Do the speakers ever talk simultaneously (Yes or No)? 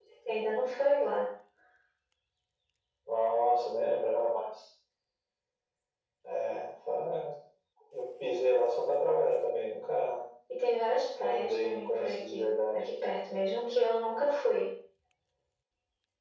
Yes